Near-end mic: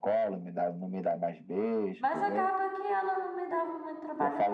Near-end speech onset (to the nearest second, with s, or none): 2 s